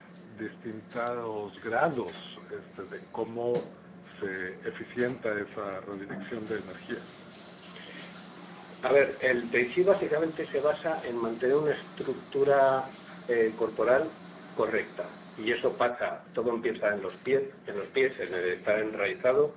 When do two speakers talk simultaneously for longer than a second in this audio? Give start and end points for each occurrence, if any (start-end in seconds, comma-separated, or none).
none